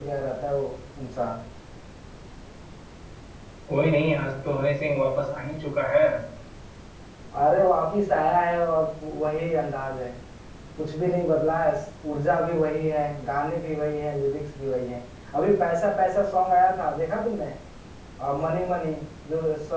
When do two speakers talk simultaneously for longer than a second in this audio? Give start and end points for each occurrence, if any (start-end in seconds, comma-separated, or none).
none